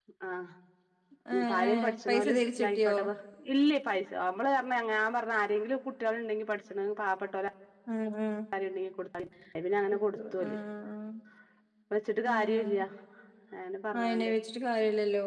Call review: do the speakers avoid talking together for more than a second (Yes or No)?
No